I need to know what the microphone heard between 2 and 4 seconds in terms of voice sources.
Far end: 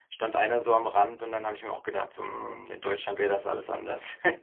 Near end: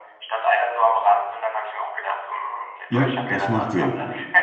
both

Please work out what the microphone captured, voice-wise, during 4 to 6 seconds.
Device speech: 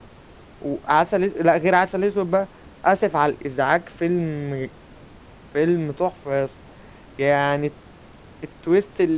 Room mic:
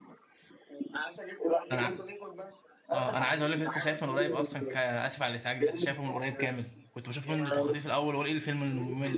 both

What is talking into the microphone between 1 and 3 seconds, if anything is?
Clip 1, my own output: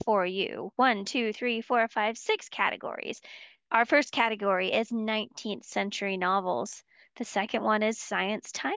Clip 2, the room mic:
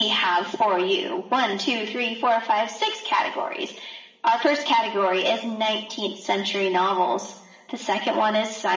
echo only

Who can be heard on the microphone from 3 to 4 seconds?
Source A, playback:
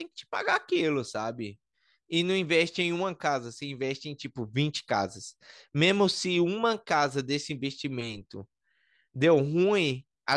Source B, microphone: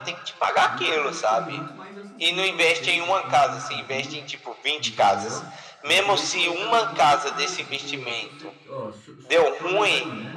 both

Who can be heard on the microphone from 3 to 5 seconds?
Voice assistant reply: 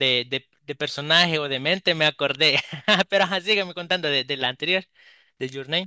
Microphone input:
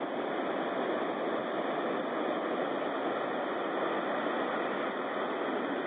neither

